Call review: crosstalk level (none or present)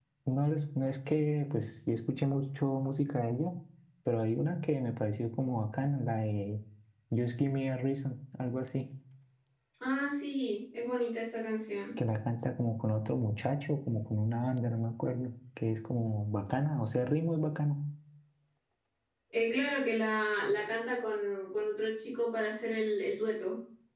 none